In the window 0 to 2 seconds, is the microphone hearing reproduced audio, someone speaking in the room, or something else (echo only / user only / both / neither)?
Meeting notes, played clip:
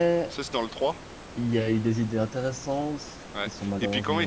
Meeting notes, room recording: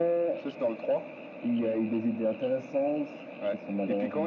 echo only